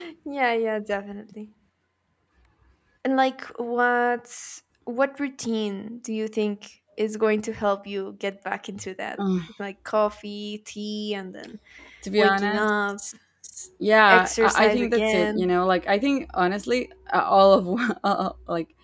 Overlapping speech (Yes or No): Yes